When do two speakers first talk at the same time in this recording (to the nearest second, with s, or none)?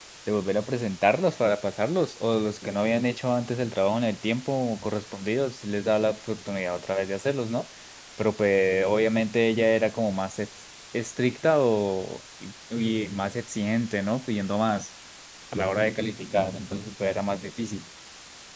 none